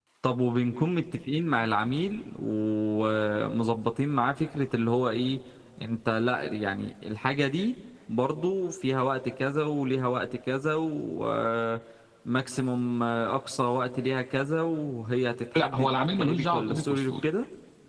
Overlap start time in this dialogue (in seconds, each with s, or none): 15.5 s